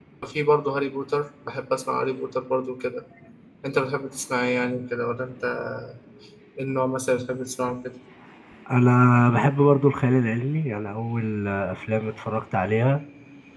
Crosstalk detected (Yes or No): No